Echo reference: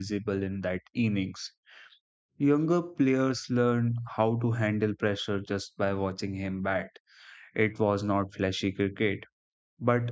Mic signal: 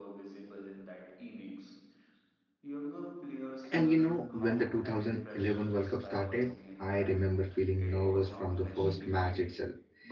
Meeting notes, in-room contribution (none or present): present